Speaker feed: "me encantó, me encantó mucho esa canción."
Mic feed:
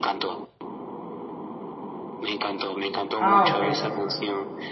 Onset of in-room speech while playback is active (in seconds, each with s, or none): 3.2 s